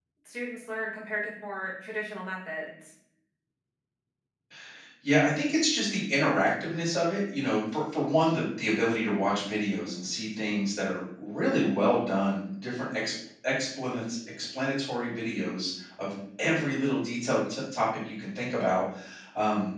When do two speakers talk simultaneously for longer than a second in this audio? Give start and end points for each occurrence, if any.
none

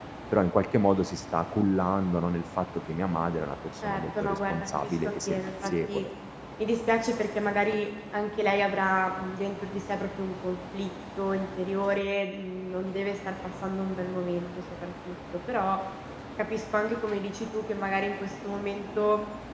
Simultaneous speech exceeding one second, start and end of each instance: 3.8-6.1

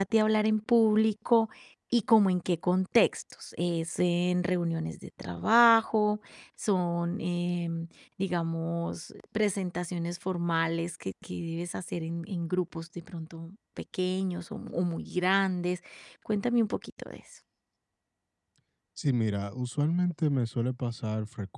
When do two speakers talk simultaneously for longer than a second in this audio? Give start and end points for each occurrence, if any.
none

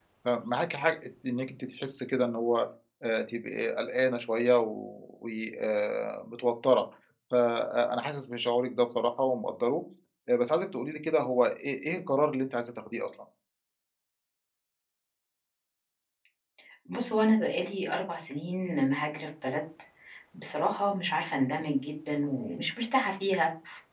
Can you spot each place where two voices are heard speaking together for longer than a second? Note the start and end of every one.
none

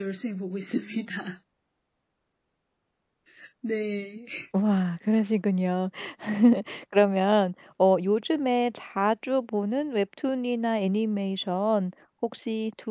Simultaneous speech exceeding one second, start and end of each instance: none

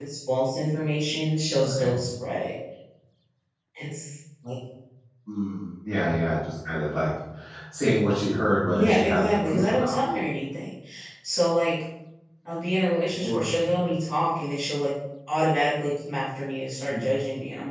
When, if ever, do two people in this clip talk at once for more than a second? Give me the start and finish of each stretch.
8.7-10.0

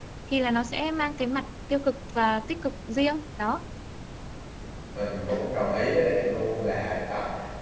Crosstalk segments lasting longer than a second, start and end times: none

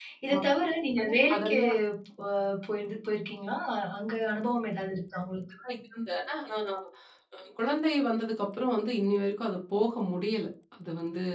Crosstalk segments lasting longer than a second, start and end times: none

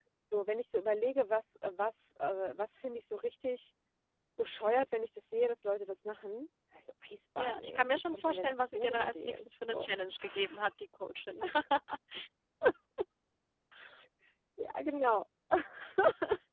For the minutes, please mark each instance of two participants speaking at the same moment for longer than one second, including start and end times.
7.4-9.9

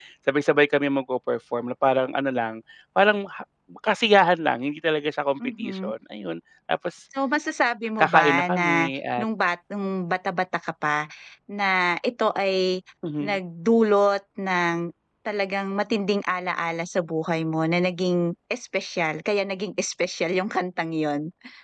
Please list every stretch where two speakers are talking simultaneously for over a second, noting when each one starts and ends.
8.0-9.2

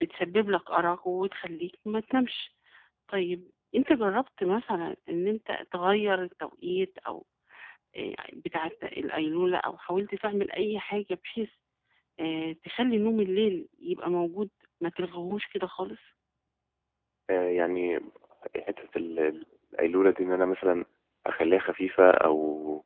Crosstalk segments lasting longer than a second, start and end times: none

